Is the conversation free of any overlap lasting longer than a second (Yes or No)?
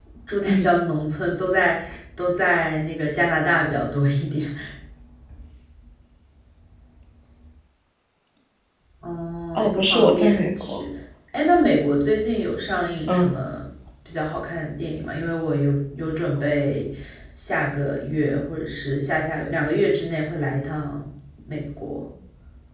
No